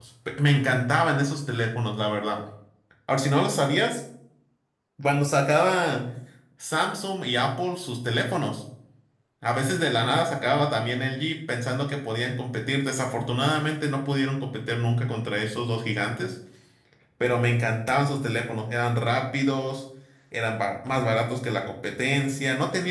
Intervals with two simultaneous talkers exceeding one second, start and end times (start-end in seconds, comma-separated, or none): none